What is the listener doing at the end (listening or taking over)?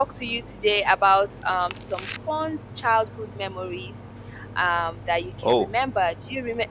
listening